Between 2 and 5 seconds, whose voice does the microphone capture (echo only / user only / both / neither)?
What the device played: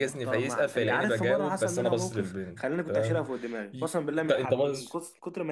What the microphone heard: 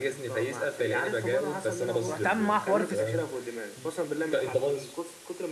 both